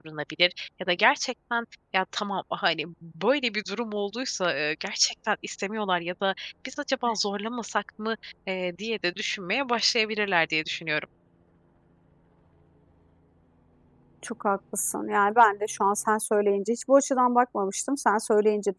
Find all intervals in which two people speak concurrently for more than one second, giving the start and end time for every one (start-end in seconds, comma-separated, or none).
none